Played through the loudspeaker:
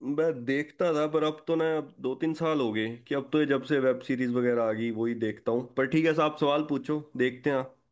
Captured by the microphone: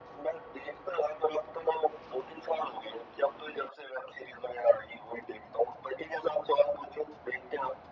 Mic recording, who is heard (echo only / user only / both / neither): echo only